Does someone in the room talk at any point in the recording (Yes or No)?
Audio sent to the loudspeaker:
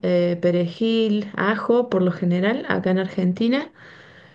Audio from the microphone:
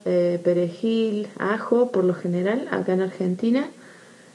No